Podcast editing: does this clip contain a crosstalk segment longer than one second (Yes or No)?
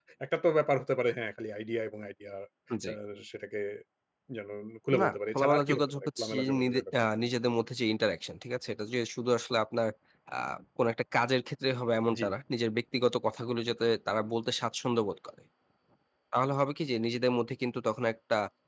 Yes